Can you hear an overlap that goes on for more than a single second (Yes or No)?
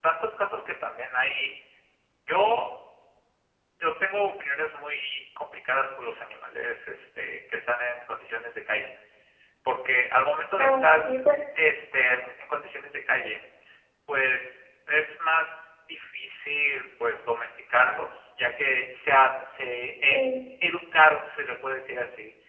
No